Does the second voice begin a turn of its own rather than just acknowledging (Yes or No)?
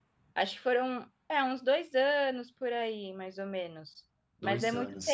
No